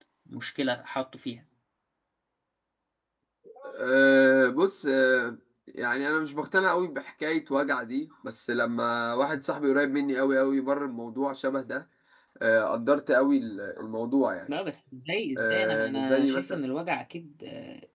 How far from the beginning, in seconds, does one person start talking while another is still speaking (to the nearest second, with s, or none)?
15 s